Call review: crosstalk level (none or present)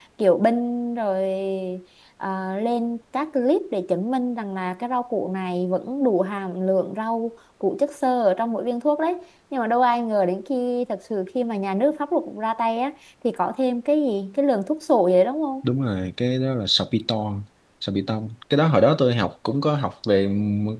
none